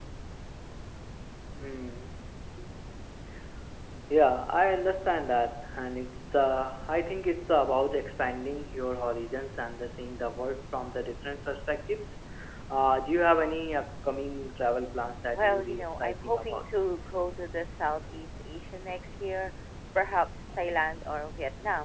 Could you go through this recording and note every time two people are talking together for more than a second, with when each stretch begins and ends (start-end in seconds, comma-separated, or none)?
15.3-16.7